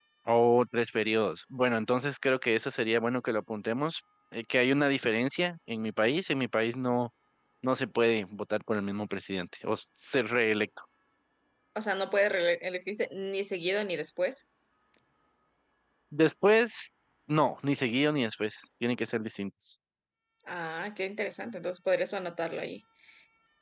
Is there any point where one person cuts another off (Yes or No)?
No